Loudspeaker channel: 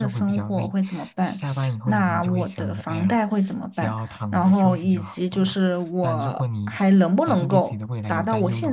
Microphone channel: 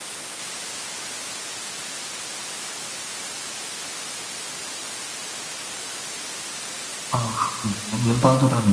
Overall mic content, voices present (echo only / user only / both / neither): user only